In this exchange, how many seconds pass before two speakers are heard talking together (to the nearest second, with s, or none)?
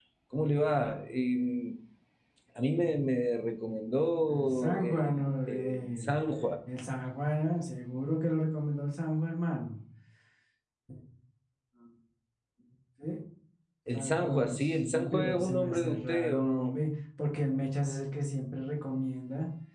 4 s